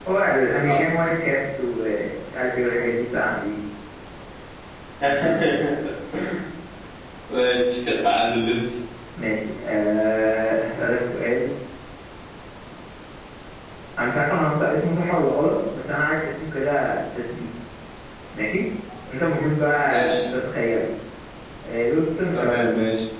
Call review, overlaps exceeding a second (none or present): none